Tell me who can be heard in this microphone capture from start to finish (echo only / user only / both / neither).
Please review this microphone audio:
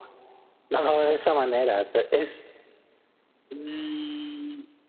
echo only